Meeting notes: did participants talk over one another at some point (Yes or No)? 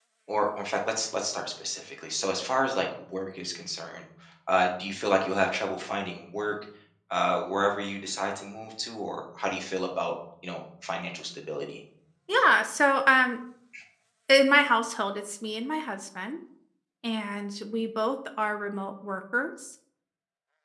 No